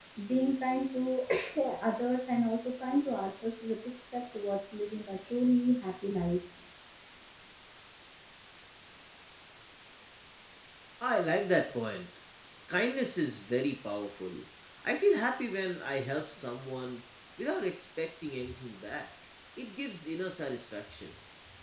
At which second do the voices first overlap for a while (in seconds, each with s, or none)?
none